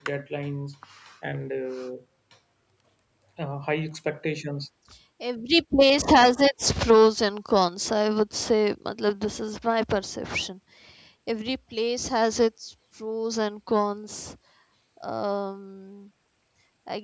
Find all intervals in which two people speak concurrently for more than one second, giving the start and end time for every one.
none

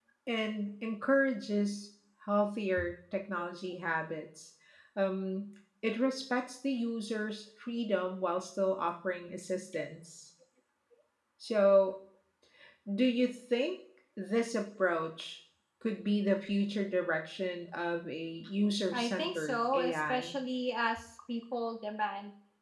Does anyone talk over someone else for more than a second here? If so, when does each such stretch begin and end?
18.9-20.4

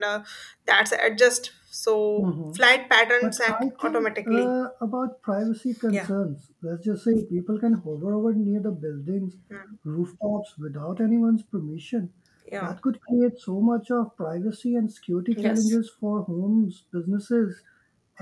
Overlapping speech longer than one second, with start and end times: 3.2-4.5

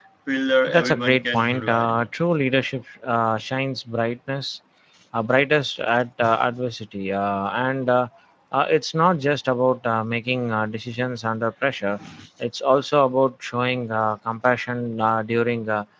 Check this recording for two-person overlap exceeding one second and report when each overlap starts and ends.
0.7-2.1

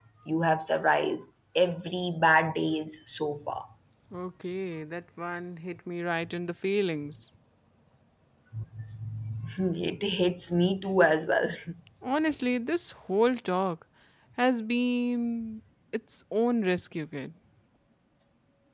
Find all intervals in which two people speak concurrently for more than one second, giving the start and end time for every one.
none

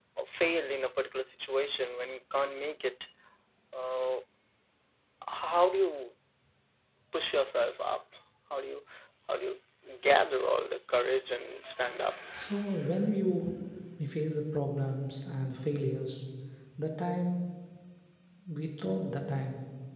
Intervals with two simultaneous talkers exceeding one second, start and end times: none

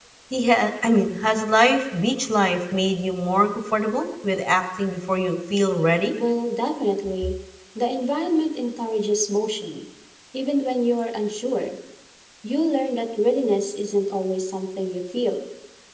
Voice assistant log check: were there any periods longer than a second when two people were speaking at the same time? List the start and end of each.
none

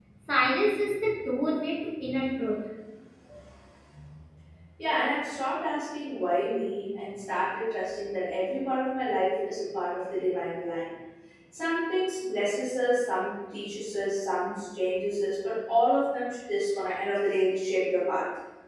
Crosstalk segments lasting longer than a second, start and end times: none

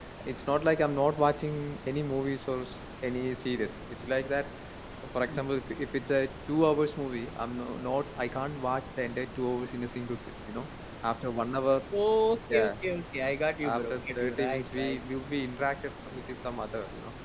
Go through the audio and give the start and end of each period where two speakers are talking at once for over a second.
13.6-15.0

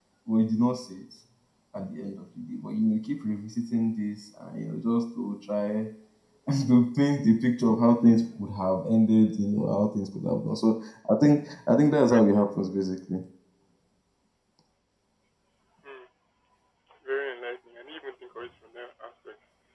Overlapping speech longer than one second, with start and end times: none

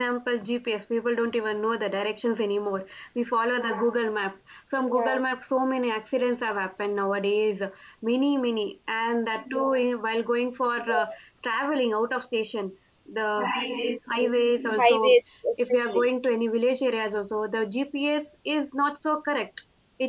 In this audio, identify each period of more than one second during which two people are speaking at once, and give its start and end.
none

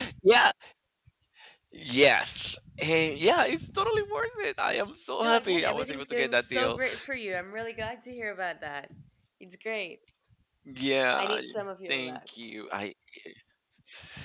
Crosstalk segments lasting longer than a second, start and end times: 5.2-6.8

